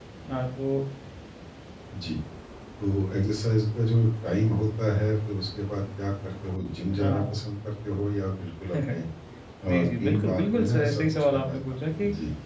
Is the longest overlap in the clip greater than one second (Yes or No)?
Yes